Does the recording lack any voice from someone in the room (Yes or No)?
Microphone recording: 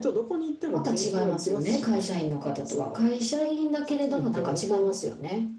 Yes